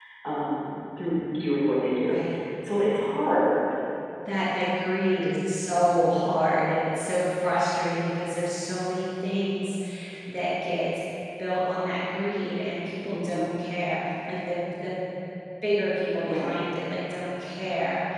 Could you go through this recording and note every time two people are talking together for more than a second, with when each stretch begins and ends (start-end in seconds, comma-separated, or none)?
none